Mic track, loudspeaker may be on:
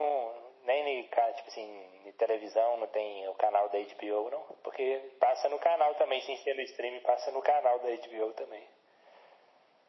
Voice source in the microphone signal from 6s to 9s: echo only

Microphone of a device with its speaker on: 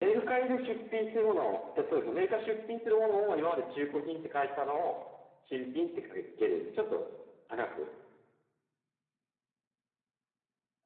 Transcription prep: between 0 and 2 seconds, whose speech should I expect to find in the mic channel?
echo only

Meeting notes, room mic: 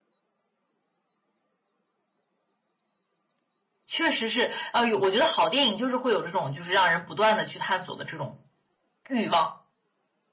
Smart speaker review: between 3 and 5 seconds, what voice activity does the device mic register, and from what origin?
user only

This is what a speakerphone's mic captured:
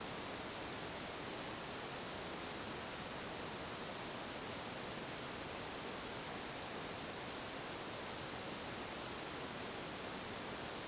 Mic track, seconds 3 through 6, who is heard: neither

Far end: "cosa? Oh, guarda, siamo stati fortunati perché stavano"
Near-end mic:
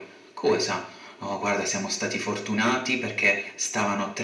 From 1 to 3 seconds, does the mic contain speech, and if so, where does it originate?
echo only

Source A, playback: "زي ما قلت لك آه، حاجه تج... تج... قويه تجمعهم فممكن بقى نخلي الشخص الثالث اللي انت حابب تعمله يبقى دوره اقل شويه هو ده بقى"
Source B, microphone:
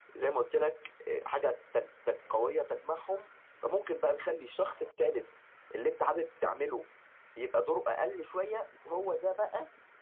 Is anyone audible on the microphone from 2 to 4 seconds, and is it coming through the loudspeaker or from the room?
echo only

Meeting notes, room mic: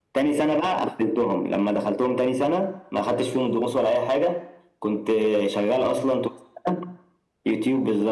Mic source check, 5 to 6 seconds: echo only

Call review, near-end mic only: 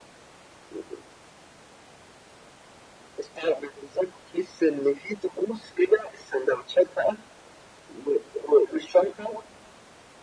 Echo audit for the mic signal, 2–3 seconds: neither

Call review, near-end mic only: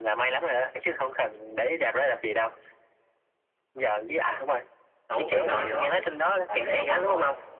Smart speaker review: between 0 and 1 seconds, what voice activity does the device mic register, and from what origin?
echo only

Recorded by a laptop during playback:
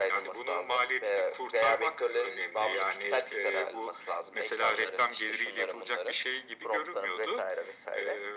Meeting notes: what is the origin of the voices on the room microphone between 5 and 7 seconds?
echo only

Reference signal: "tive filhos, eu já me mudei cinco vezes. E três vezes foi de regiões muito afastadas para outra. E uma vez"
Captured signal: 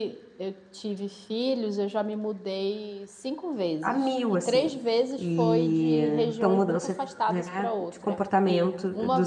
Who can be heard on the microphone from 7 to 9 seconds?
both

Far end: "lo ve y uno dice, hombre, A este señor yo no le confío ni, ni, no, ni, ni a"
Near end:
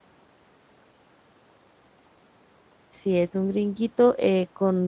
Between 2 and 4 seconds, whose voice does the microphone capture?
user only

